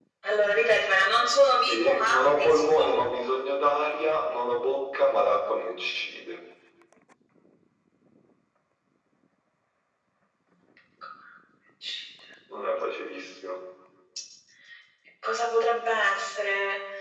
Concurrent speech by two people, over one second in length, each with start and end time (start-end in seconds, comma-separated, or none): 1.7-2.9